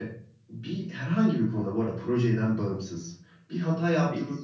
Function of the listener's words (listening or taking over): listening